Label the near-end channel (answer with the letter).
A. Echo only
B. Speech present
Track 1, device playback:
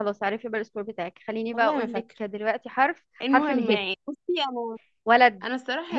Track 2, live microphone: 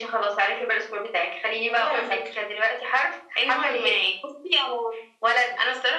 A